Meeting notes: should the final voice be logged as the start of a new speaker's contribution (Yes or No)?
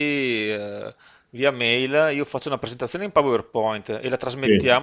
No